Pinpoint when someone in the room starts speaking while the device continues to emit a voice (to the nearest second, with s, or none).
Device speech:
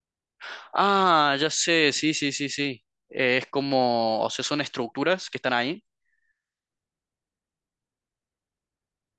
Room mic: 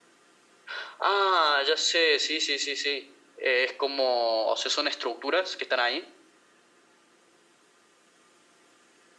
none